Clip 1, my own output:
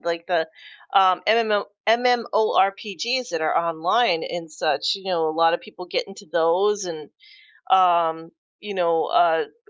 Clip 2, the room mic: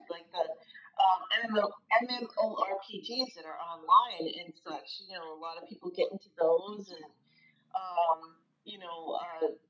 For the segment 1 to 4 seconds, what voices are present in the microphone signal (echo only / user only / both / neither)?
echo only